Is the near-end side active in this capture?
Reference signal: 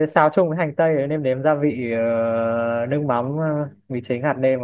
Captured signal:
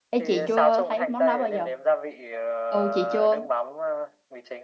Yes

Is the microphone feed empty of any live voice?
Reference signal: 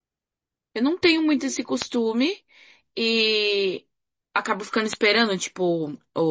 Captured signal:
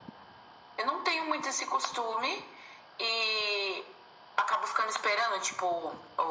Yes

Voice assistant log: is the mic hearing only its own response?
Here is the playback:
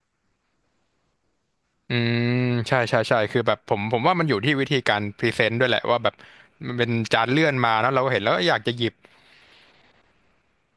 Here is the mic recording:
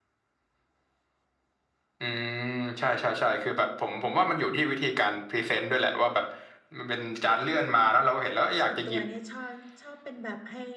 No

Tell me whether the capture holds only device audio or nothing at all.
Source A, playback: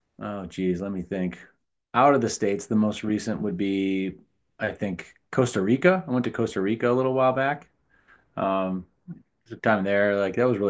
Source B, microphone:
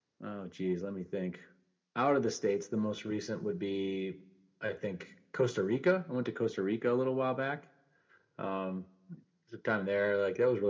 Yes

